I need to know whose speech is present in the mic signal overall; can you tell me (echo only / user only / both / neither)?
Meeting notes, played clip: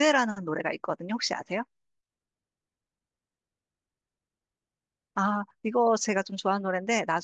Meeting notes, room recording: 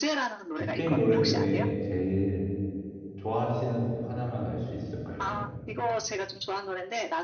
both